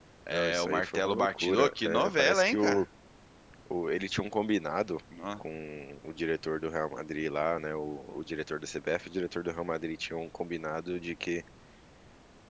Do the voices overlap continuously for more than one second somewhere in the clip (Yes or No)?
Yes